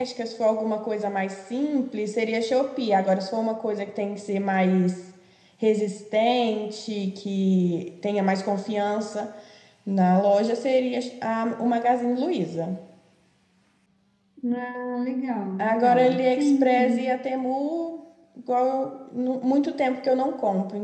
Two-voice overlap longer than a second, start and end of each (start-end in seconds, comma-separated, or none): 15.6-17.1